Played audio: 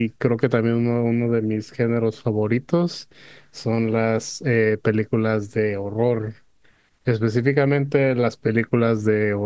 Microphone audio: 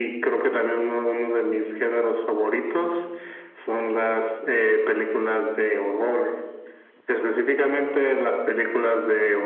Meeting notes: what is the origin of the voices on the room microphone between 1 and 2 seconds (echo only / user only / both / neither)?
echo only